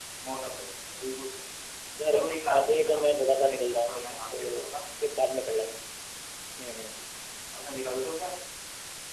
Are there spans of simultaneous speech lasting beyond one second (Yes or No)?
Yes